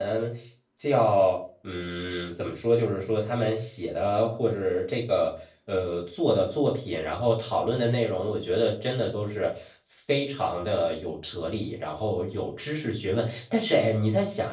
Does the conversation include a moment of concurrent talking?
No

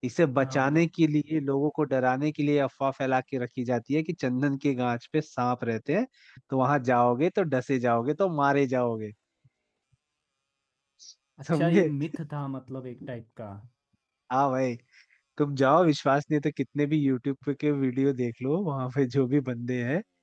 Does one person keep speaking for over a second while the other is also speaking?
No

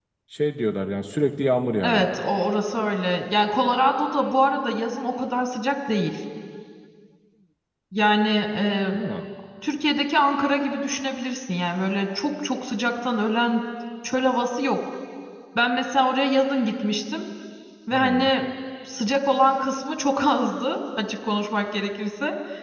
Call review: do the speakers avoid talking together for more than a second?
Yes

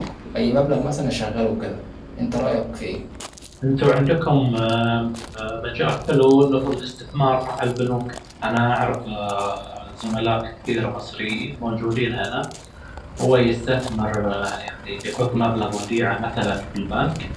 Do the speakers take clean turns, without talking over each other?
Yes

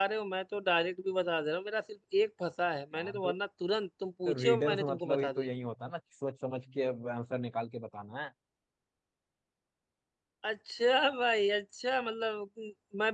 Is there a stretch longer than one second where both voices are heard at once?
Yes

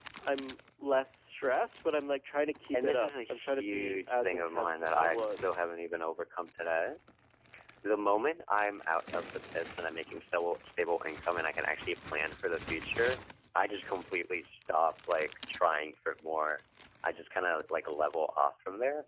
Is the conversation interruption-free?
No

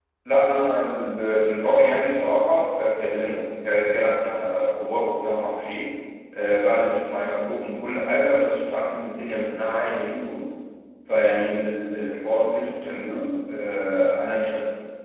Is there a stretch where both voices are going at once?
No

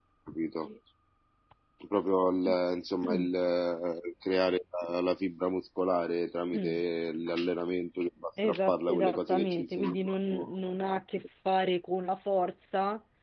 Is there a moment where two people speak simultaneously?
Yes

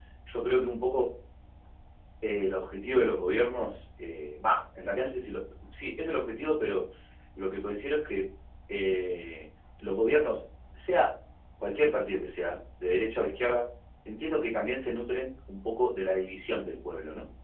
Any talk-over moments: No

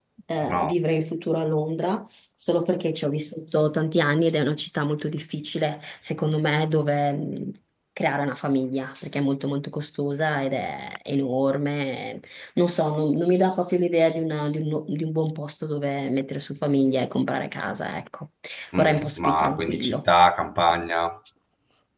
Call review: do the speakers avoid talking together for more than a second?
No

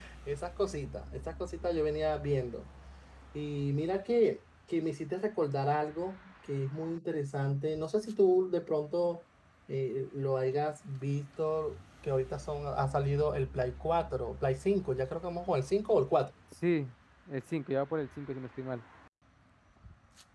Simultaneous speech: No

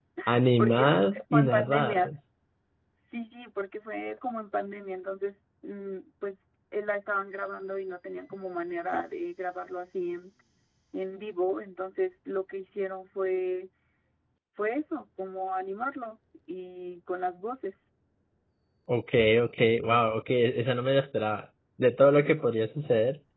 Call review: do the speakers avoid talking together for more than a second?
No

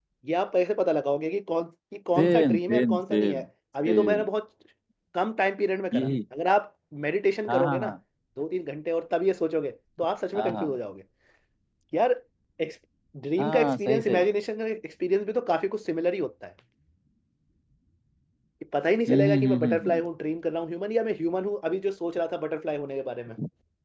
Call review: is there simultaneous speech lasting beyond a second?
Yes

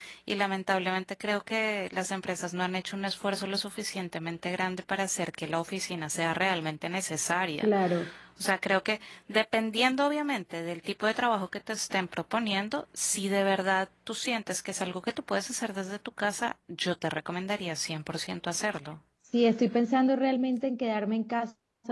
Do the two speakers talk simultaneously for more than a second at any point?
No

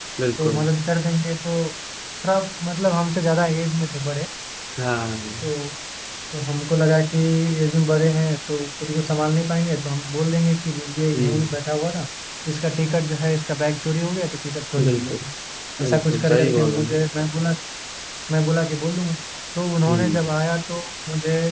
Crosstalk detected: Yes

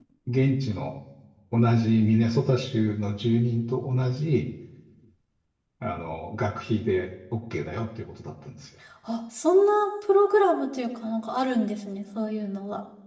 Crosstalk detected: No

